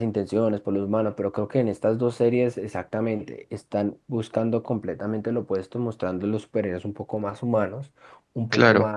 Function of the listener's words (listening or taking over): listening